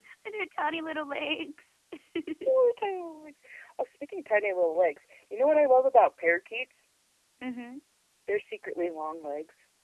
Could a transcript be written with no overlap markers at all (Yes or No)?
Yes